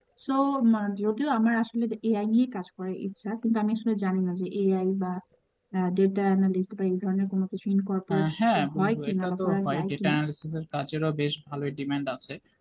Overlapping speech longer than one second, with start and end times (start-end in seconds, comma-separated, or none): 8.8-10.2